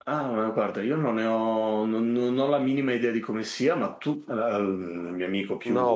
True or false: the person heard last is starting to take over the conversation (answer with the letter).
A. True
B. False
A